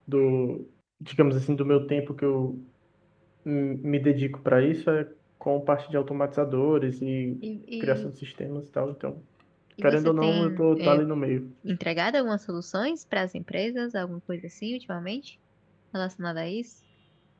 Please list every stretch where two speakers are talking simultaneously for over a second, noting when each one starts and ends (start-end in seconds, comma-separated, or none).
9.8-11.0